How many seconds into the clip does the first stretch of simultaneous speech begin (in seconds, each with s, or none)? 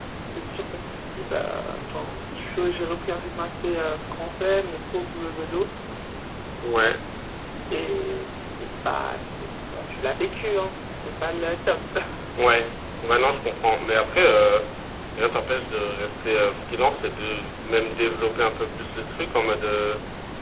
none